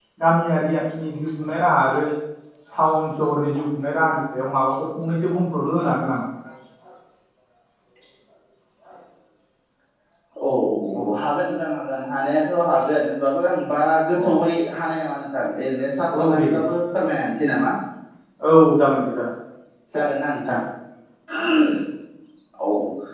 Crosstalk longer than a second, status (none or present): none